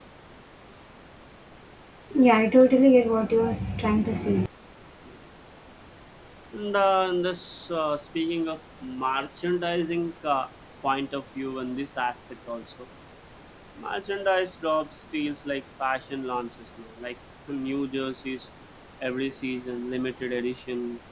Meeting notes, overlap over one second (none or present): none